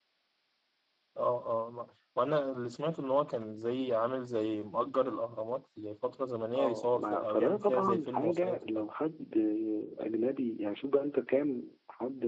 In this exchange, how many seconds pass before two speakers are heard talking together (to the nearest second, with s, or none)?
7 s